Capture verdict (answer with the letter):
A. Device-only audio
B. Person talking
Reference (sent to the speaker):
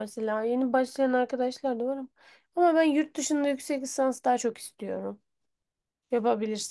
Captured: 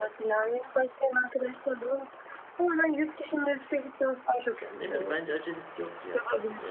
B